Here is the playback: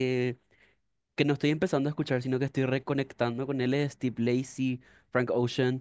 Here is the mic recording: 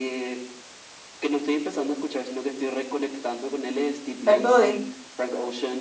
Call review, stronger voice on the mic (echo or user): user